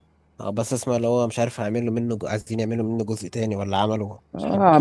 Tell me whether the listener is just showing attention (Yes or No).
No